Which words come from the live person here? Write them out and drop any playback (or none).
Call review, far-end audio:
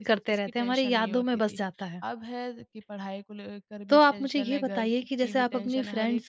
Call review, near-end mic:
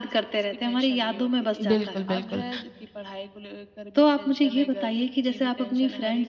बिल्कुल, बिल्कुल।